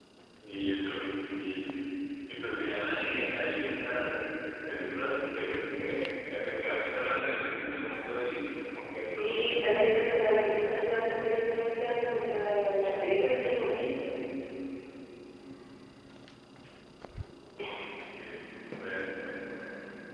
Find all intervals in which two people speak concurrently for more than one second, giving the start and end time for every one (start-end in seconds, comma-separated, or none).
9.2-10.8